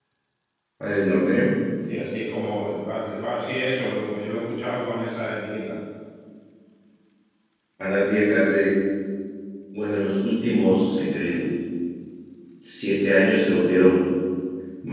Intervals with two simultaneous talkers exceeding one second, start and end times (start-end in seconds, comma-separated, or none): none